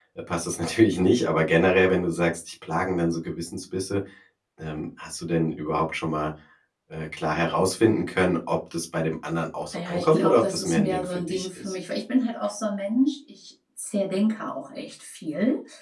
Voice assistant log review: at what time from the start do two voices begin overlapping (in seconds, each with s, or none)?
9.7 s